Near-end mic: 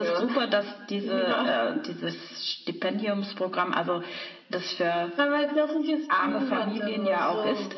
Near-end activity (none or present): none